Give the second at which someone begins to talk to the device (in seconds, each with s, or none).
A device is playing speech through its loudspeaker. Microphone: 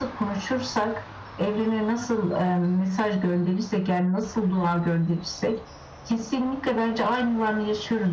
none